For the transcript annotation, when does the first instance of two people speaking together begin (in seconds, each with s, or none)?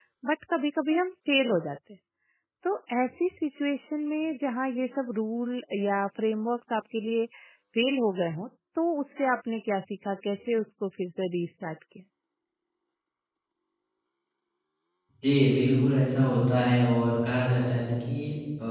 none